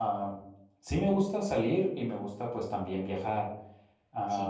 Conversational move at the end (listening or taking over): listening